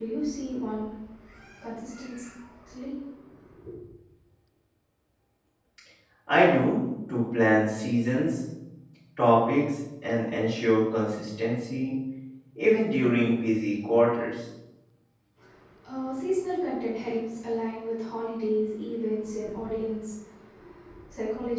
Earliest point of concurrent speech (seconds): none

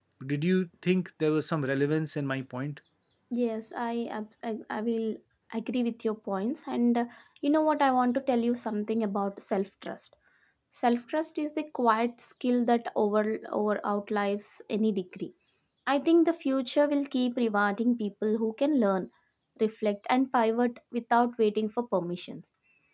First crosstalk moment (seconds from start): none

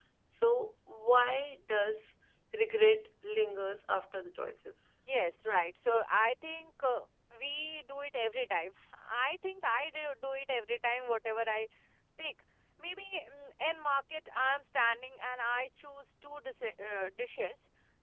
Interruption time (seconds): none

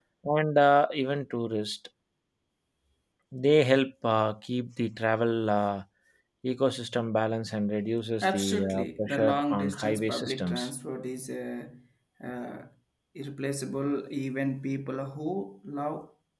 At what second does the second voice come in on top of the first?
8.2 s

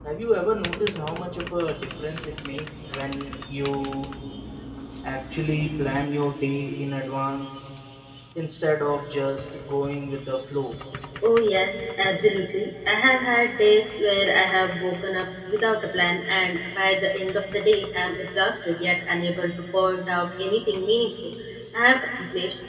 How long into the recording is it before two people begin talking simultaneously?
none

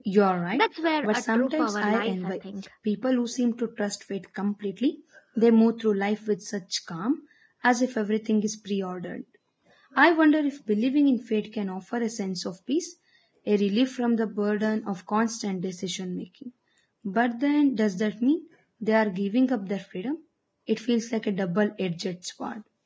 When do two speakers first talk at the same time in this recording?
1.0 s

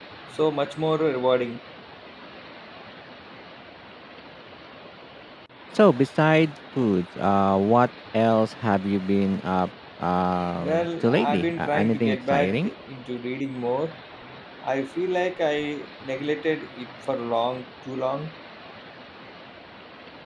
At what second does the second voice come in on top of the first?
10.6 s

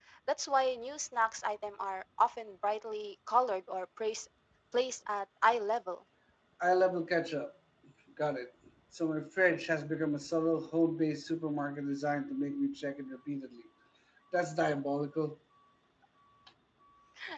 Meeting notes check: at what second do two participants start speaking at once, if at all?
none

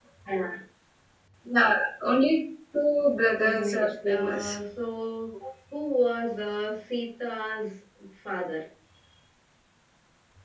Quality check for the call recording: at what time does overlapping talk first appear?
3.4 s

